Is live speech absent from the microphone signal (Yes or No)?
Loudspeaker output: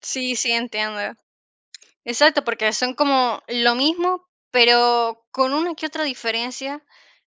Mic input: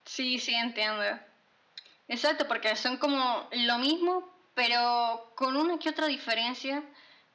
Yes